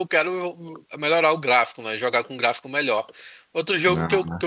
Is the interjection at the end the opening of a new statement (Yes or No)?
No